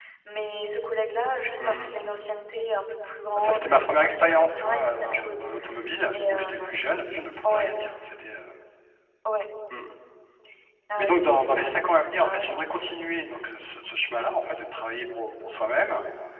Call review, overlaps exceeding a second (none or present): present